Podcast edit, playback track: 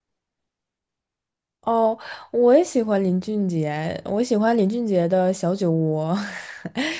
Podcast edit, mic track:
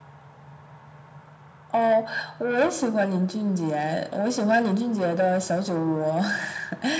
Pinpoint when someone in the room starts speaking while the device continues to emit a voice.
none

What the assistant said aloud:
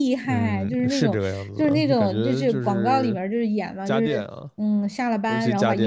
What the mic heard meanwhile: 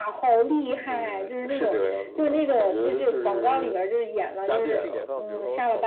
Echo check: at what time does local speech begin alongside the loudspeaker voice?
5 s

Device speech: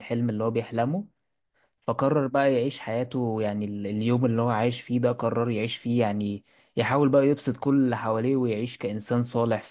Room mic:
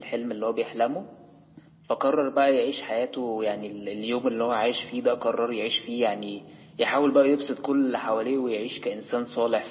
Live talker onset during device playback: none

